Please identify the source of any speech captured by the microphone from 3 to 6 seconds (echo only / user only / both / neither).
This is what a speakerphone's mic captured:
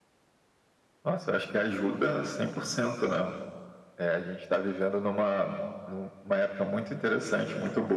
echo only